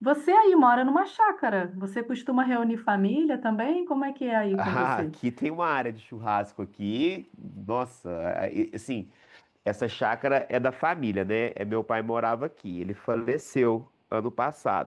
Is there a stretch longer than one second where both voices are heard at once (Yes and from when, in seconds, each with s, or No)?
No